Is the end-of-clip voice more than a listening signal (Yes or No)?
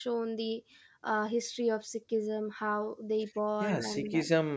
Yes